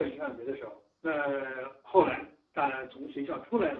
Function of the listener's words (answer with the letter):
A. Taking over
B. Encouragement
A